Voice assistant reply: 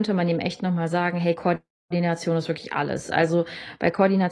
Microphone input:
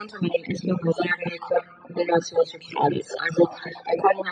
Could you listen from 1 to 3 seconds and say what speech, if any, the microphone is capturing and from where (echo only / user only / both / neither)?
echo only